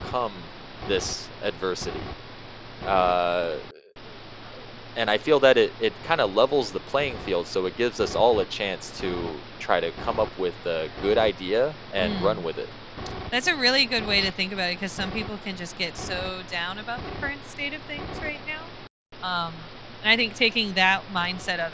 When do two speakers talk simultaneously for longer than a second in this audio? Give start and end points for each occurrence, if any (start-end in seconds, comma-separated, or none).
none